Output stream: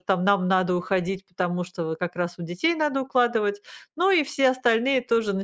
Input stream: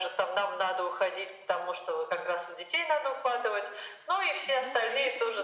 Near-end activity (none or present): present